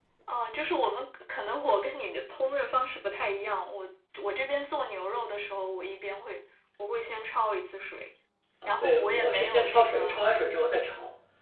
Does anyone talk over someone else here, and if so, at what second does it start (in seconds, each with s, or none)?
8.7 s